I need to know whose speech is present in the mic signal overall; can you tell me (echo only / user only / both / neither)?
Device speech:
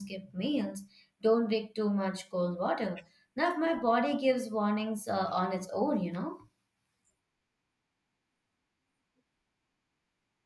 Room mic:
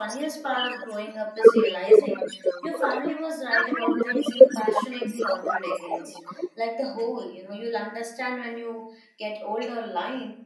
both